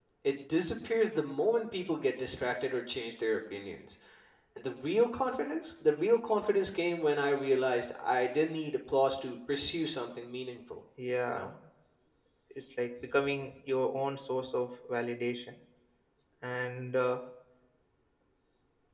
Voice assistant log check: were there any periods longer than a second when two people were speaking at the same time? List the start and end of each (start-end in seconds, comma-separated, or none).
none